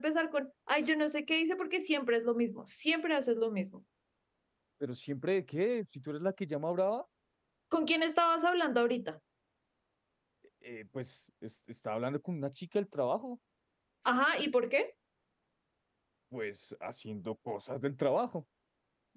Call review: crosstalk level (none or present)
none